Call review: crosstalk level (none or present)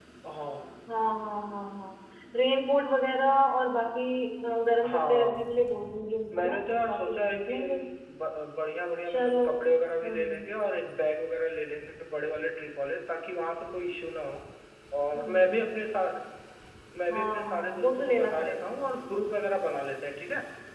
present